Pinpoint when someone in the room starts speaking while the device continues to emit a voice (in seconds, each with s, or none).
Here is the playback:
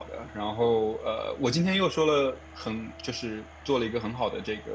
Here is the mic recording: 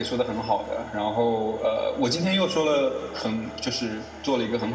none